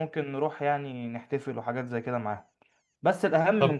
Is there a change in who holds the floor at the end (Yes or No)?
No